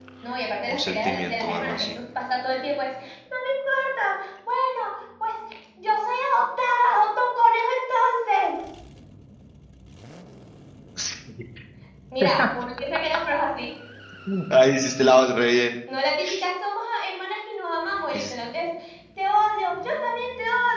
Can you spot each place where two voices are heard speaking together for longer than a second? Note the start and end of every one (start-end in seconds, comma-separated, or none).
0.7-2.0